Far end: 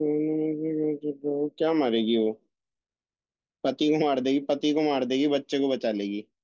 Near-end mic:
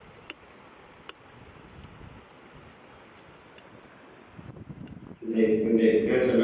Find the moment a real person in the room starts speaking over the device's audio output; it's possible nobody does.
5.3 s

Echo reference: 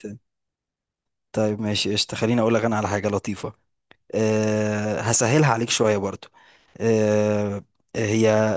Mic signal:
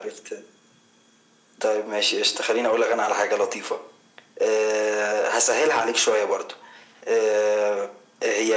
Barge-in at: none

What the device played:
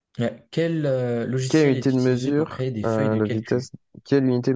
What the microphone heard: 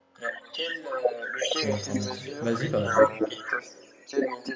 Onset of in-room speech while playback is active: 1.6 s

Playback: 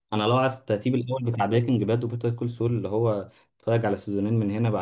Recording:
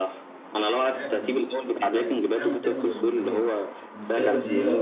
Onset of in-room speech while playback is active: 0.8 s

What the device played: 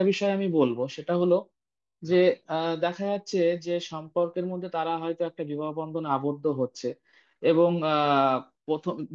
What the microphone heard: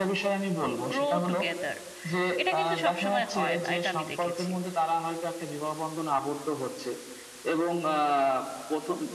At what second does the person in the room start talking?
0.9 s

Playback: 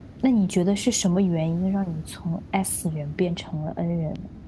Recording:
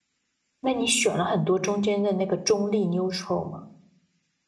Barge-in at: 0.6 s

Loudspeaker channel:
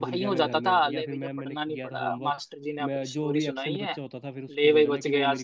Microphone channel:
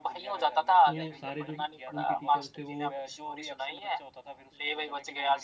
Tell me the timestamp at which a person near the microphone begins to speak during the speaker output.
0.8 s

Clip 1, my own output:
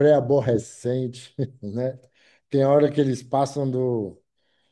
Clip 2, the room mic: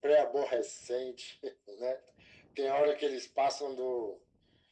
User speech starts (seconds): none

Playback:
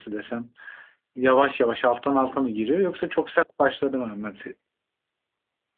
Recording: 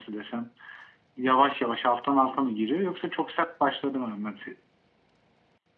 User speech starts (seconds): none

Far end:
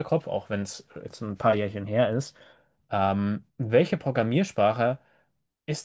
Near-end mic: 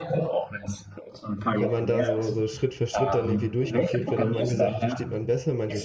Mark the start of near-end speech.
1.6 s

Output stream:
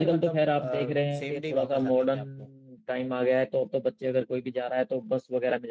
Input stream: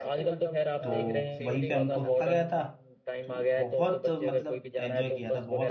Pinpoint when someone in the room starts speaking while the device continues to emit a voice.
0.8 s

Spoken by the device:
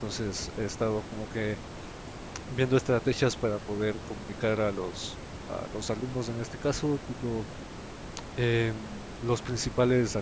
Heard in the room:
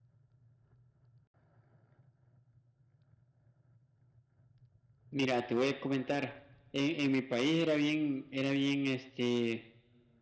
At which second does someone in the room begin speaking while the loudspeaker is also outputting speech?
5.1 s

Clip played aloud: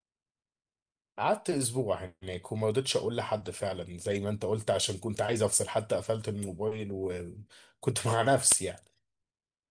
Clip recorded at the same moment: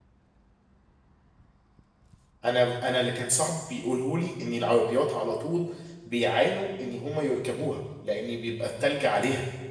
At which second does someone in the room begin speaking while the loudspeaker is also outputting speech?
2.4 s

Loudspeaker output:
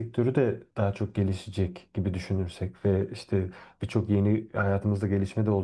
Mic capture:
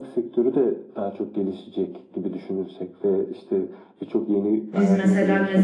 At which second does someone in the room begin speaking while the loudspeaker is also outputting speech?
4.7 s

